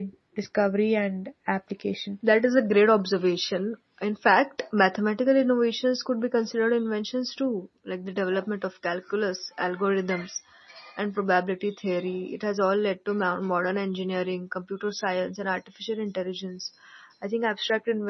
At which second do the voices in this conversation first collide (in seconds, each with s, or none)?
none